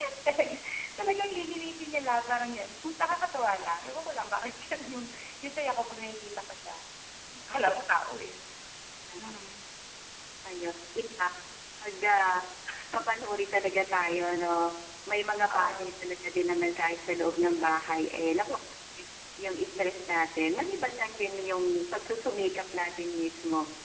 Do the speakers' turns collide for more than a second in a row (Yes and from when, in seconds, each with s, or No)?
No